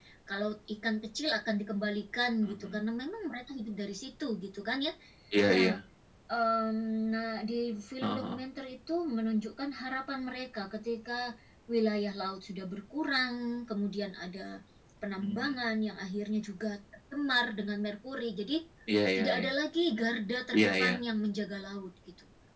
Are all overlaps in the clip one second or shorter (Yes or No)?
Yes